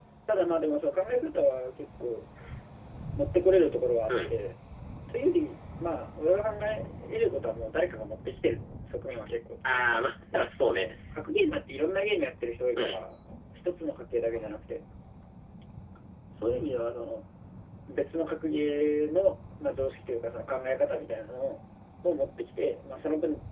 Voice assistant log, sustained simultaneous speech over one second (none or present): none